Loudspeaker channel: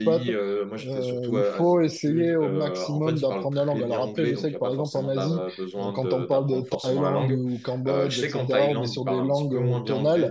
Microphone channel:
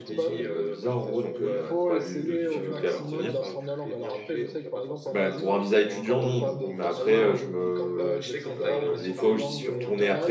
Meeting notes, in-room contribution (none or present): present